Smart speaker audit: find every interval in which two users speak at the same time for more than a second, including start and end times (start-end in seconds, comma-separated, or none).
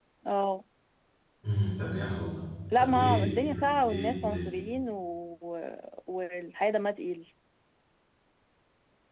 2.8-4.5